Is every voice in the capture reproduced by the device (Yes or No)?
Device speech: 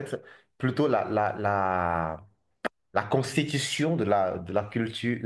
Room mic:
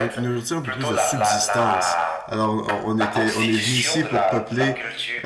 No